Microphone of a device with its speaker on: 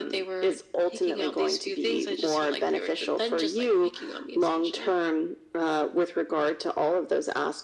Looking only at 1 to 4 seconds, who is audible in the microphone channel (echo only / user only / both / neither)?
echo only